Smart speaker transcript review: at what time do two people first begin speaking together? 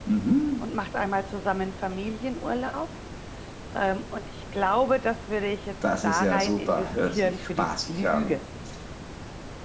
6.0 s

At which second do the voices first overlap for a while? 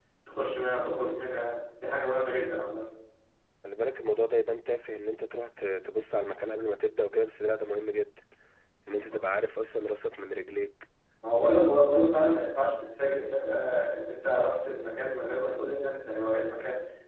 none

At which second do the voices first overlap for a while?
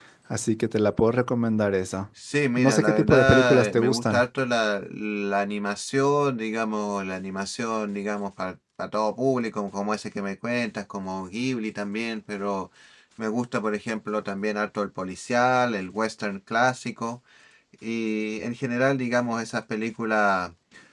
2.6 s

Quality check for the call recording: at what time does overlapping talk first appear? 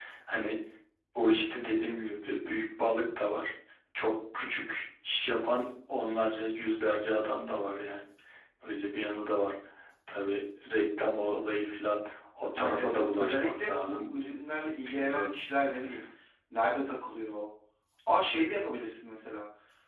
12.6 s

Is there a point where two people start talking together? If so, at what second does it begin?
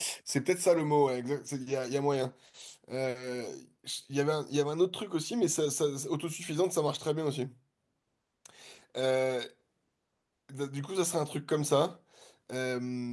none

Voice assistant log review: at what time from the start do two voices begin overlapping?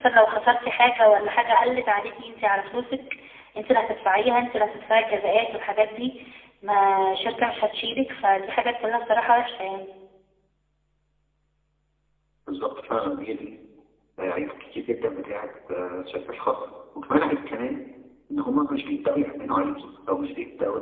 none

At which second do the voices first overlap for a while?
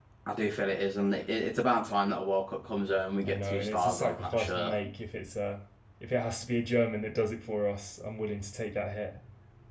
3.2 s

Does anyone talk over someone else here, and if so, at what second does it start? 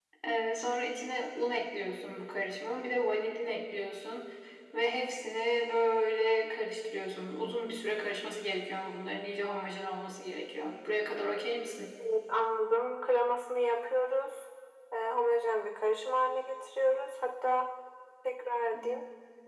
none

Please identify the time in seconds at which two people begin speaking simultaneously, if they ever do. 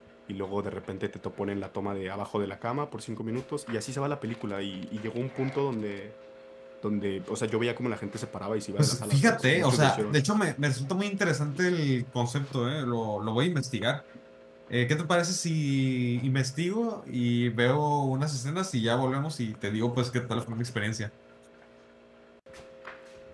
8.8 s

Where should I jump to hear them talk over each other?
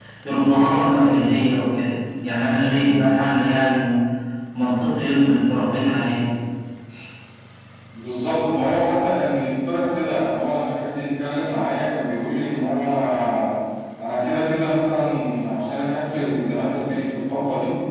none

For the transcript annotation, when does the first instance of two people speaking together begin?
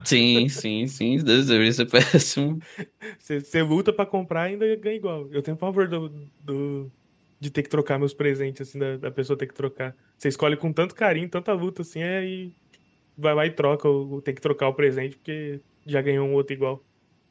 none

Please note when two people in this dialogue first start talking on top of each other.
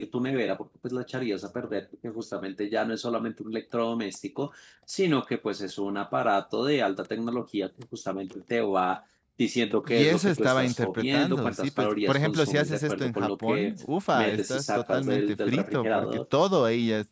9.9 s

